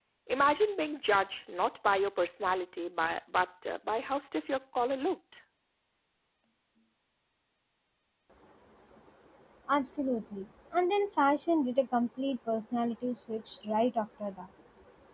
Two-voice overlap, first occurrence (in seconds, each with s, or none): none